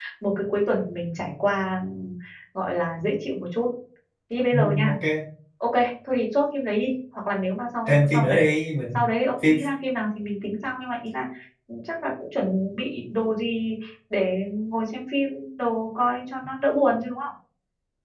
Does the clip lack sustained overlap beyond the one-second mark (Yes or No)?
Yes